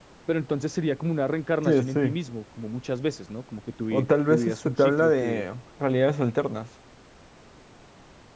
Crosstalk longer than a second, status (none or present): present